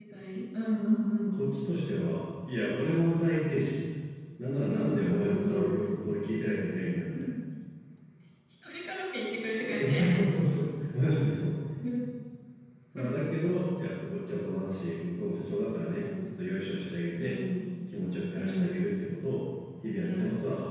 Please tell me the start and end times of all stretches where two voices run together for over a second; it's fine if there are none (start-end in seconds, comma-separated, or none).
4.7-5.9